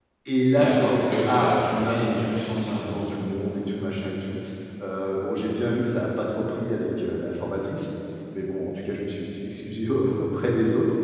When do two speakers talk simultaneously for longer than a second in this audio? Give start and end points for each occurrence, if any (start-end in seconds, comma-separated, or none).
0.6-3.1